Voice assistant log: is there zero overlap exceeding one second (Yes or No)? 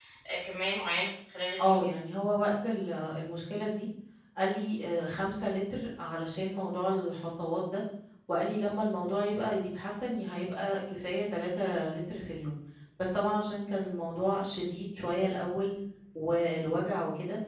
Yes